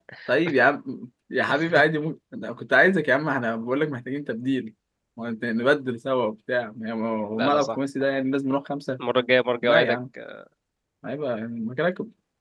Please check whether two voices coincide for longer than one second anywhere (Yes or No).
No